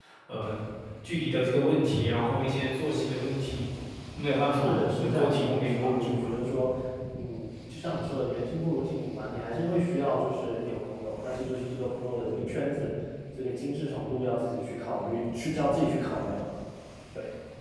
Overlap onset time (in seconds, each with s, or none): 4.6 s